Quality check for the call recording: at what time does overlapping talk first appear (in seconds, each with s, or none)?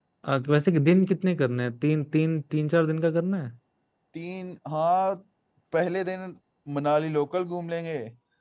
none